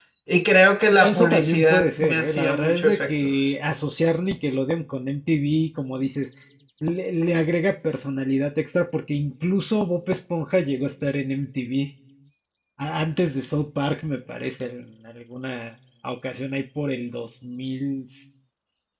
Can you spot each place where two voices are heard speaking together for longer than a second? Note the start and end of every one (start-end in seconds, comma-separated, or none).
1.0-3.3